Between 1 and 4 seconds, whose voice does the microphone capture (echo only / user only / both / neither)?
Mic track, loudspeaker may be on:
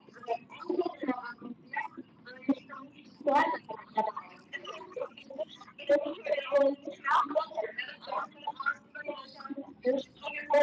echo only